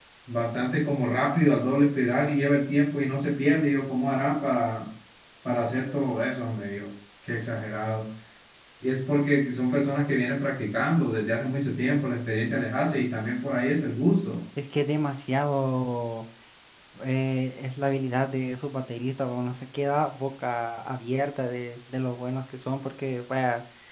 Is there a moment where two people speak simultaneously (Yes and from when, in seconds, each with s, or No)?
No